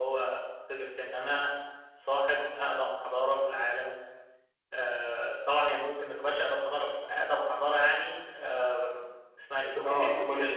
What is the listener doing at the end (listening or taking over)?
taking over